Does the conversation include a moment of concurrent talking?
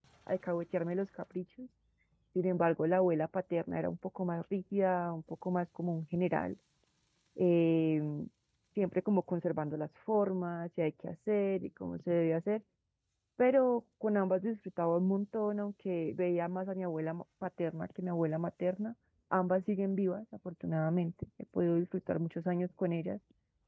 No

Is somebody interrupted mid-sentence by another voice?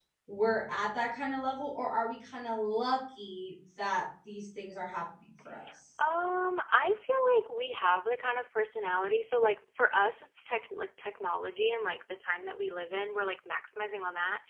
No

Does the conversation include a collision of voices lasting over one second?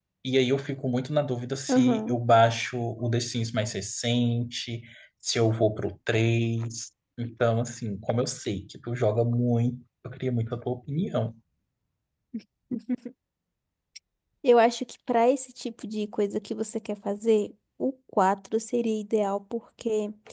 No

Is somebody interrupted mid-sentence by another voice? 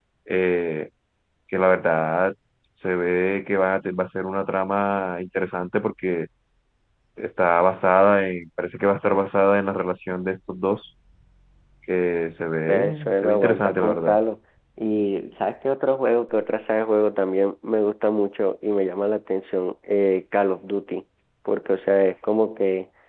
Yes, from 12.7 s

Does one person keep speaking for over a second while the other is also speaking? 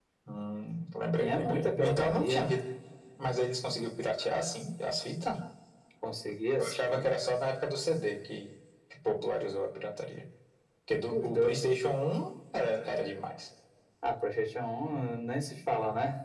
Yes, from 1.2 s

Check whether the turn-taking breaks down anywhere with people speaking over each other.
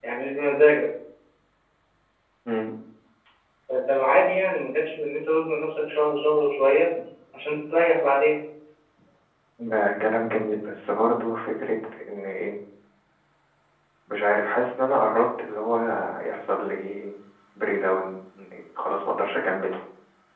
No

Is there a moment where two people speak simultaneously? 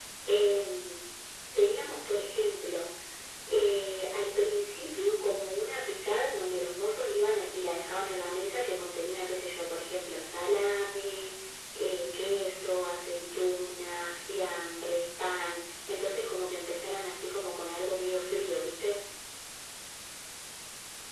No

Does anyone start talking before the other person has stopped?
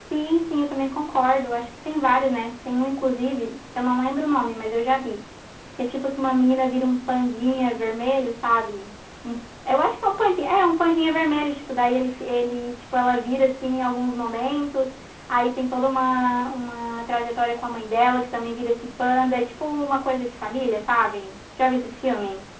No

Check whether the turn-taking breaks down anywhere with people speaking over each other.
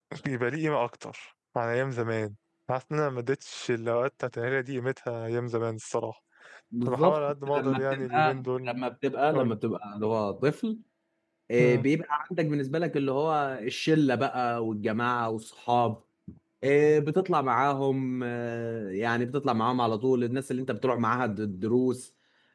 Yes, from 6.8 s

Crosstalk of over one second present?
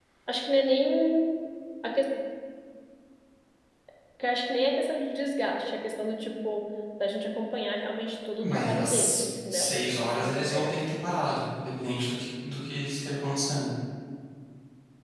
Yes, from 8.4 s

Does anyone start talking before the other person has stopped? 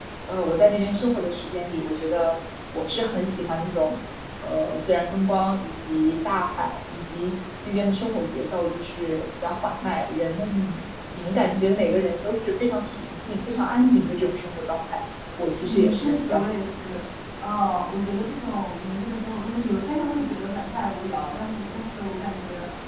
Yes, from 15.6 s

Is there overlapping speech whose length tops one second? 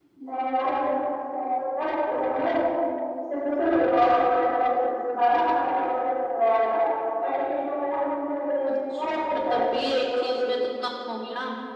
Yes, from 8.7 s

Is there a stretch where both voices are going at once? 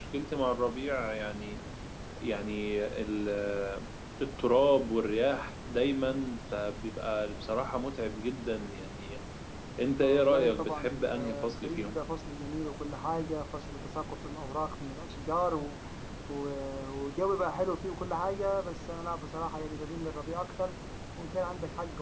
Yes, from 10.0 s

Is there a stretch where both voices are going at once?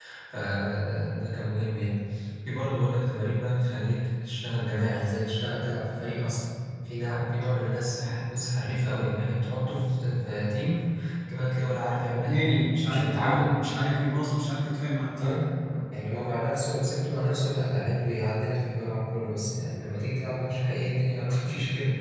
Yes, from 12.2 s

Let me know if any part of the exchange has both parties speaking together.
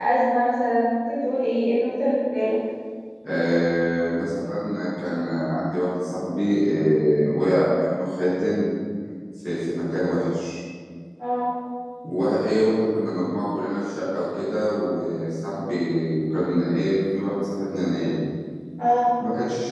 No

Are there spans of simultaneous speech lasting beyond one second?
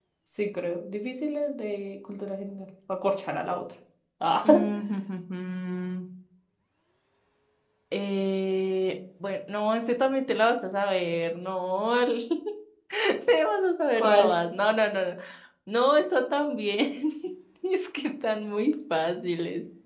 No

